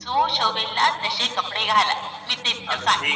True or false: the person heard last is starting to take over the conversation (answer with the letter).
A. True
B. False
A